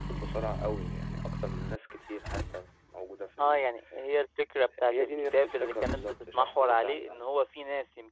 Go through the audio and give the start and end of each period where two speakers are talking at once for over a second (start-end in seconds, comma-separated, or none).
4.9-7.2